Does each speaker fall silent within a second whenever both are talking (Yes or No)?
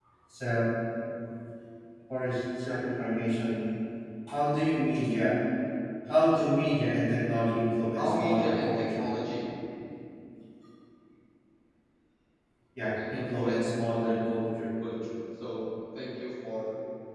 No